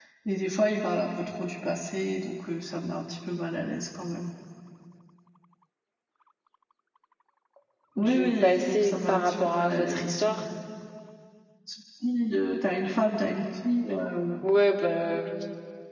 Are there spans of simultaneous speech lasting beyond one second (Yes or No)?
Yes